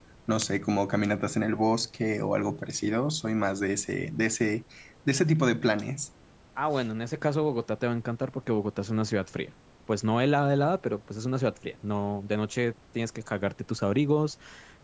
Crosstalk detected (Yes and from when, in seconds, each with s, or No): No